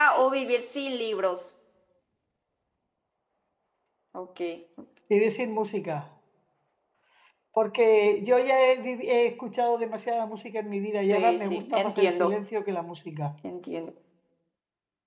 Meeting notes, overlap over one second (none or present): present